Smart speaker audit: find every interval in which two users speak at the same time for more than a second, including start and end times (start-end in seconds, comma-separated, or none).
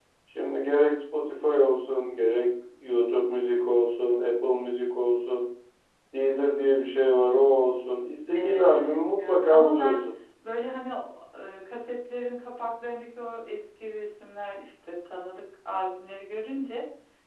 8.3-10.0